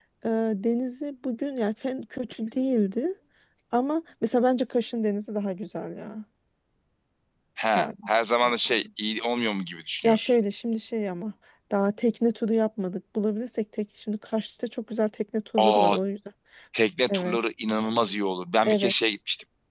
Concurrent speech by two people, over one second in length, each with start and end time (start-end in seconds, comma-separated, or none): none